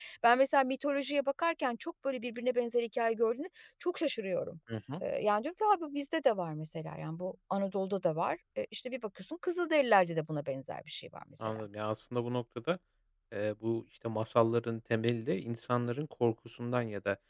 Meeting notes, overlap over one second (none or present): none